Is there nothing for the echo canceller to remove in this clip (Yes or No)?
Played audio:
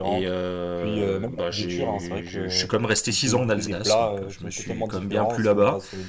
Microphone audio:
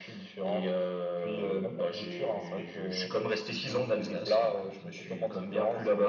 No